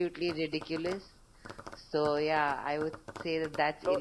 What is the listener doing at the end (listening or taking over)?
taking over